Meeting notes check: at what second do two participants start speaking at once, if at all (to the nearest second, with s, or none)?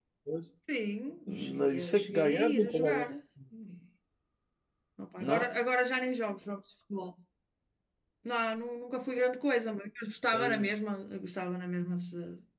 1 s